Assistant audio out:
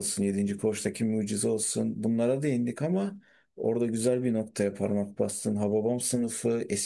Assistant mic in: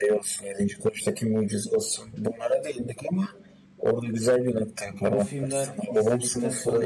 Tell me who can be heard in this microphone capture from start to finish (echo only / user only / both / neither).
both